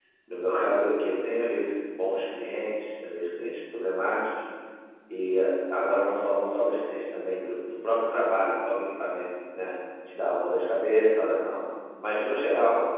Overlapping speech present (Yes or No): No